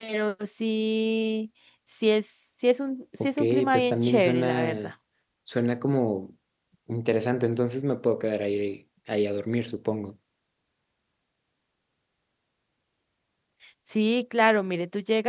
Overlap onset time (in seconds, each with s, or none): 3.2 s